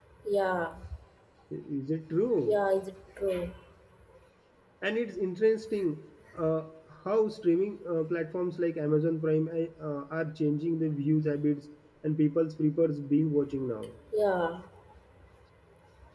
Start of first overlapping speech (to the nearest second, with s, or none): none